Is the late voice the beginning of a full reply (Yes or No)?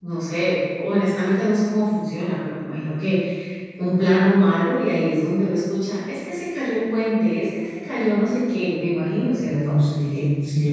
Yes